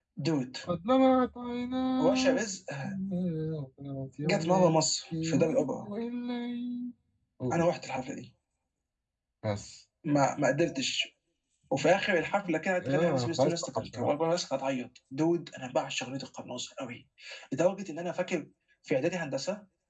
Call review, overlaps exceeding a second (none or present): present